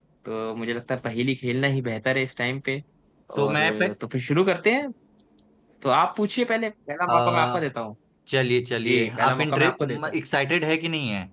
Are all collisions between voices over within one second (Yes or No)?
No